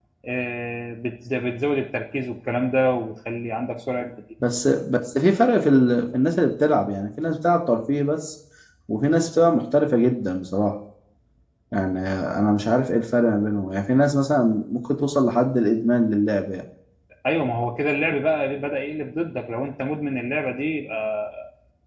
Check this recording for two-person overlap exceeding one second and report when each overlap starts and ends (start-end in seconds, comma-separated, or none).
none